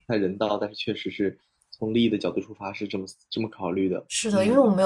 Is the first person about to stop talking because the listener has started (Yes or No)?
Yes